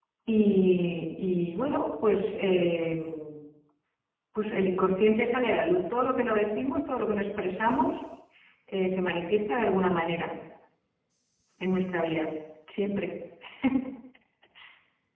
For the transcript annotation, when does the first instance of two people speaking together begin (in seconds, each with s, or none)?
none